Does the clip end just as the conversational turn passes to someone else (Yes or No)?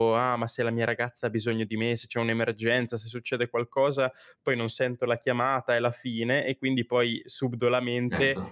No